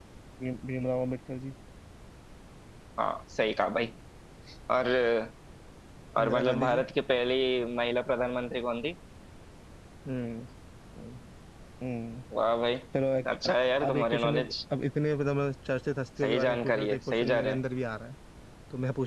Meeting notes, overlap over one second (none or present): present